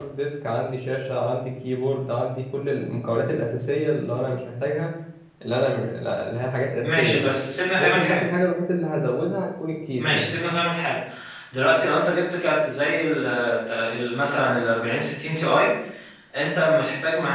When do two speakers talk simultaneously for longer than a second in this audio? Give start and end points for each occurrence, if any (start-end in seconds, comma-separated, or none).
none